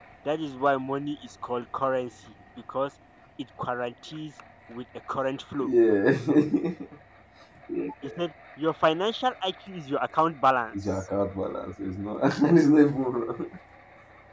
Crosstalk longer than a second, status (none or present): none